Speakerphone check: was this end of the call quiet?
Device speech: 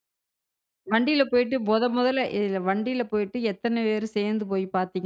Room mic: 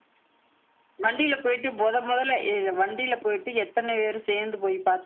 Yes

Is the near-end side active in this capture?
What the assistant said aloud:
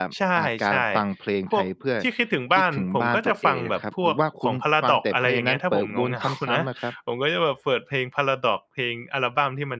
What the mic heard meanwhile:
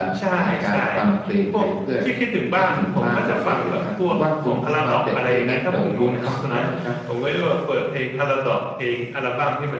No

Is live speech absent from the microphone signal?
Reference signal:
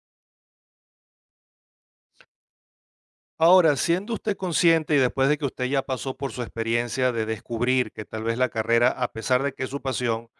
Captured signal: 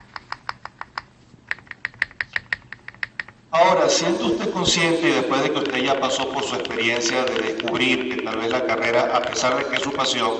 Yes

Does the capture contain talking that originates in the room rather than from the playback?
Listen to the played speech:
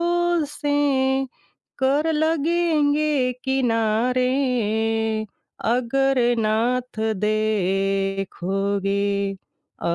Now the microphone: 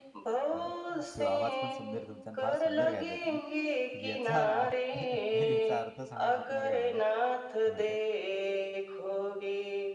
Yes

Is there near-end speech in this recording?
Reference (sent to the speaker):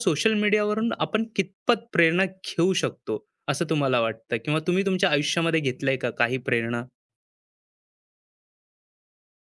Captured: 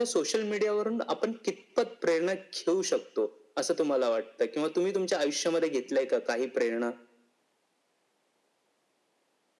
No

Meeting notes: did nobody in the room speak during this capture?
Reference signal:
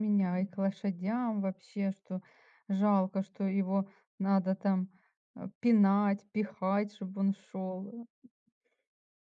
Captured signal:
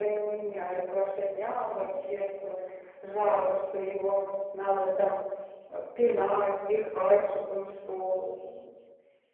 Yes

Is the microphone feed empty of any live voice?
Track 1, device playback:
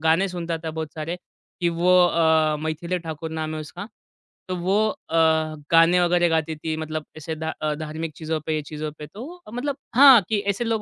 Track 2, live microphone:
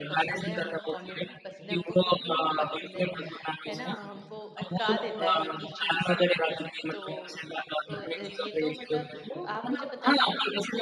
No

